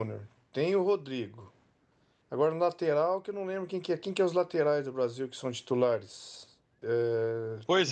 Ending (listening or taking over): taking over